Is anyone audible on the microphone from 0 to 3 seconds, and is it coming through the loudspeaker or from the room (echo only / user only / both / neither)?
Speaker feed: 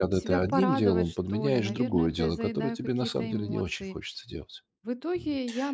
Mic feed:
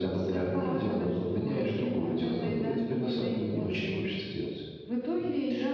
echo only